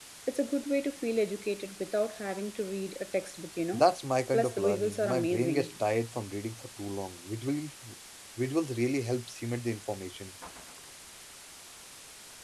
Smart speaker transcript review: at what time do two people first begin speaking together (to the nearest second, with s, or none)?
4 s